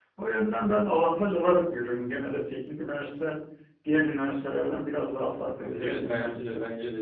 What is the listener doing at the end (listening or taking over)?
taking over